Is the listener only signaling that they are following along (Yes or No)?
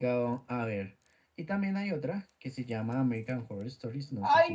No